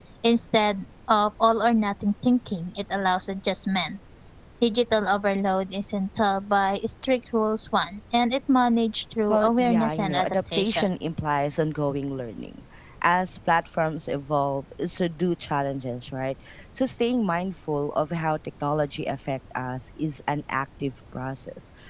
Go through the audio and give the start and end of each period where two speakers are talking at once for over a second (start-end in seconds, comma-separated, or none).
9.3-10.8